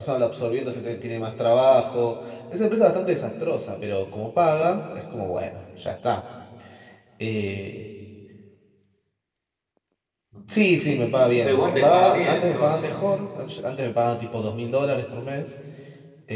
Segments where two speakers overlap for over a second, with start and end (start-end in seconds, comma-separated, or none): 11.4-12.9